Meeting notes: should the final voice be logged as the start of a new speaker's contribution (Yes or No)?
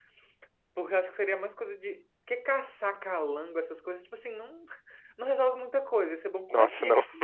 No